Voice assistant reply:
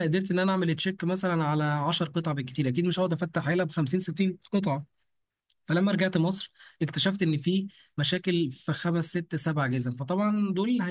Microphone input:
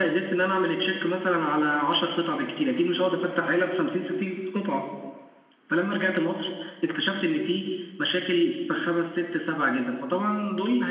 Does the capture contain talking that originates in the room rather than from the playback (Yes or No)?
No